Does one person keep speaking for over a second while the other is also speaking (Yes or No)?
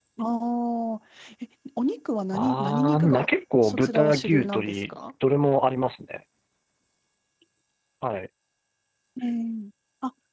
Yes